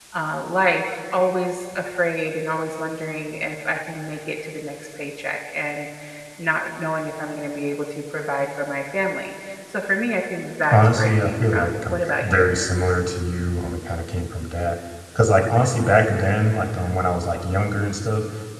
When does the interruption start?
10.7 s

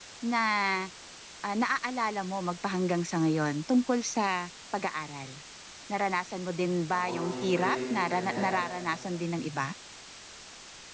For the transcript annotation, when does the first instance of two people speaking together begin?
6.9 s

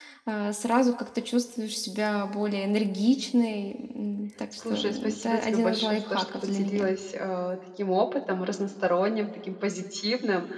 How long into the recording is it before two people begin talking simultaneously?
4.6 s

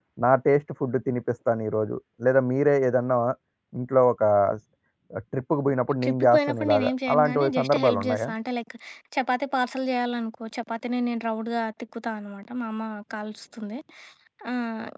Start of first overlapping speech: 6.0 s

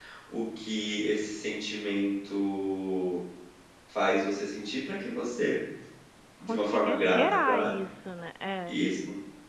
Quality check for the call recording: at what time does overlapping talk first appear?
6.5 s

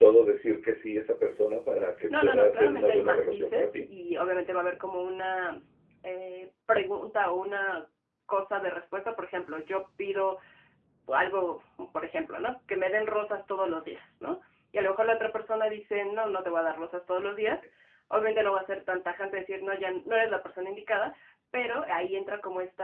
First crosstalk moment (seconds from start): 2.1 s

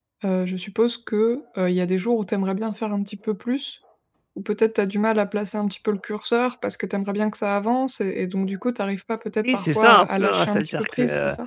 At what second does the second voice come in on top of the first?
9.4 s

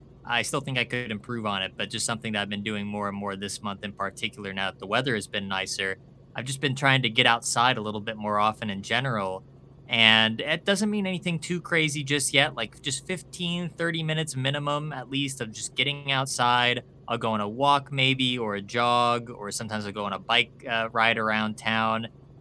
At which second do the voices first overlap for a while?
none

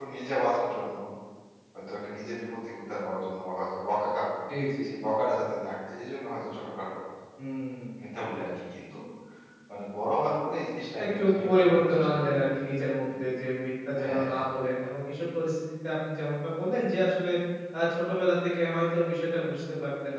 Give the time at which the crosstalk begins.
11.0 s

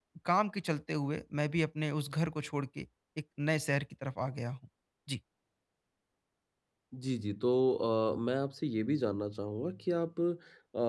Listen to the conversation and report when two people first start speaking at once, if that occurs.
none

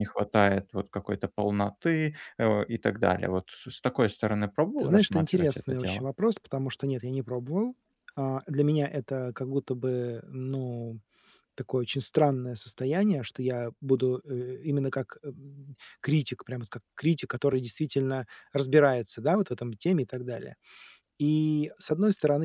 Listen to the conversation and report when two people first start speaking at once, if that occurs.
4.8 s

